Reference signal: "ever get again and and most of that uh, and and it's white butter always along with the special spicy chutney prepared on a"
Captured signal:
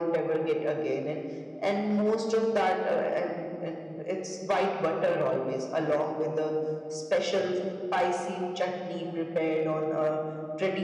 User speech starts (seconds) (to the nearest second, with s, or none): none